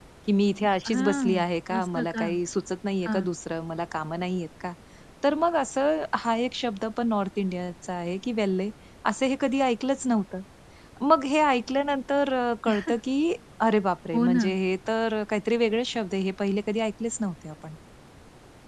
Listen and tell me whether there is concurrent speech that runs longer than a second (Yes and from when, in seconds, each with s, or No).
Yes, from 0.9 s